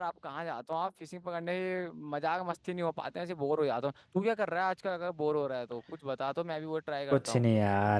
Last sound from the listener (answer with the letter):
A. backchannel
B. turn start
B